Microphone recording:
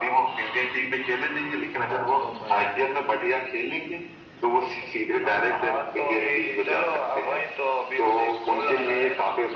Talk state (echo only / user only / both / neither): both